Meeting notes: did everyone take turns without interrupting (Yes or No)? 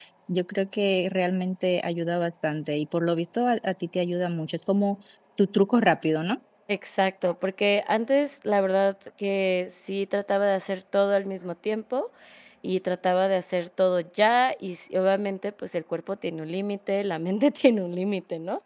Yes